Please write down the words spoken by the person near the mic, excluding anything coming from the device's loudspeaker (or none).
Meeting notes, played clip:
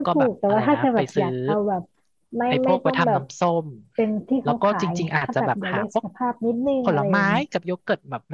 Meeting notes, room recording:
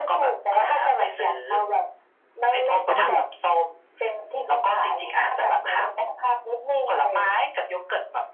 เพราะมันดู